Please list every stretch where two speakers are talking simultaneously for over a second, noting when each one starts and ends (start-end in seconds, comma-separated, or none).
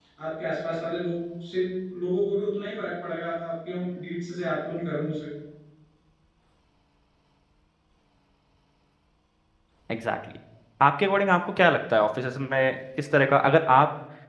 none